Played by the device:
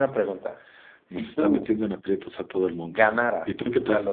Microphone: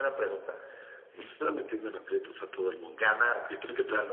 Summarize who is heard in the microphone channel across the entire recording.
echo only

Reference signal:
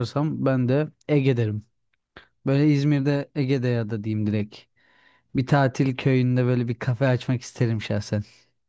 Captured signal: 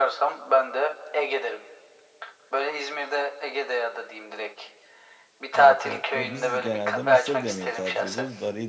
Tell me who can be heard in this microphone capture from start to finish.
both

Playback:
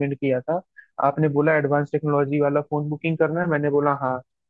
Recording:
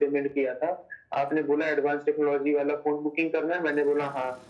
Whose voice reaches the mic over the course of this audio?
echo only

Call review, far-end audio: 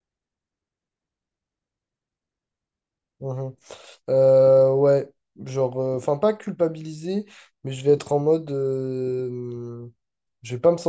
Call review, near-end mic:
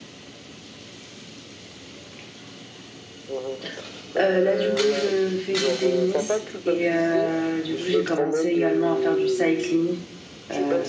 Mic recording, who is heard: both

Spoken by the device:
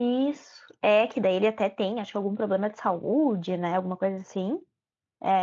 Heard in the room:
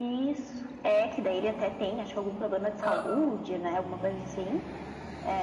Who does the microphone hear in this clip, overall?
both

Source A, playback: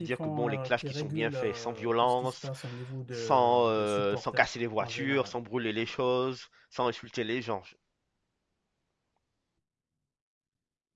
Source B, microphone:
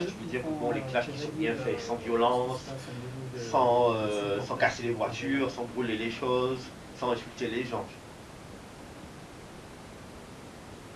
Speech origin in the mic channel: echo only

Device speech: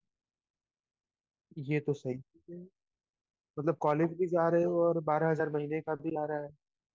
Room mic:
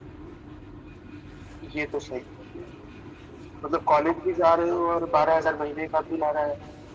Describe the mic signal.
echo only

